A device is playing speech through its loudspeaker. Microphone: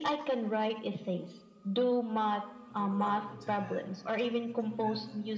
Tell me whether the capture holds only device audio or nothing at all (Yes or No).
No